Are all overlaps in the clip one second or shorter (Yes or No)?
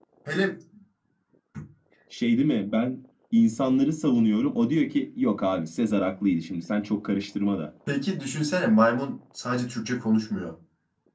Yes